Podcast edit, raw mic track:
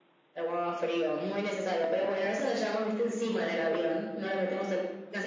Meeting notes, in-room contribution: none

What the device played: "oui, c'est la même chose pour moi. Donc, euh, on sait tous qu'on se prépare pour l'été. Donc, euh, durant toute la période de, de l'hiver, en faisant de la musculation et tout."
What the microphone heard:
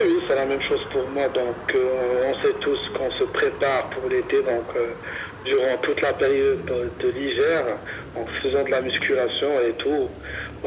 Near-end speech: none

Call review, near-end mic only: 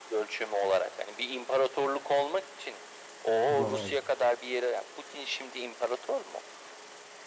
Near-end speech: present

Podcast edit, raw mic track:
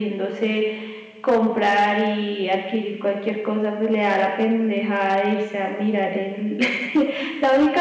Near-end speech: none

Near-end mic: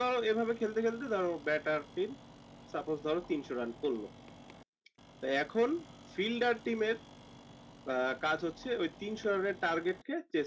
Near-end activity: none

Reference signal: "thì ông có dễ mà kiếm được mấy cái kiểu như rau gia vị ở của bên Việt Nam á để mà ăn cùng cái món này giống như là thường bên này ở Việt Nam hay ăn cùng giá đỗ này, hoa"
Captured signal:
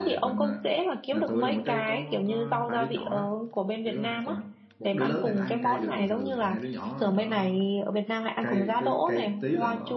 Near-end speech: present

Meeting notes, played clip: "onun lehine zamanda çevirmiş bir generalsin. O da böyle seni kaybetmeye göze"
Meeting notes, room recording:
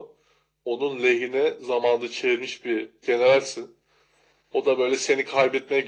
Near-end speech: none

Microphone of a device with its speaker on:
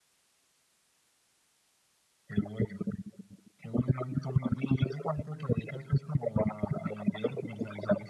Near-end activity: none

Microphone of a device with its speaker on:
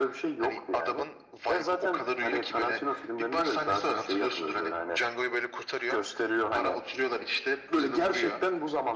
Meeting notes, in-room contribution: none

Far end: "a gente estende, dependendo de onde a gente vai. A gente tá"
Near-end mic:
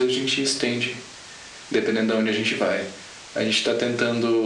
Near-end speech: none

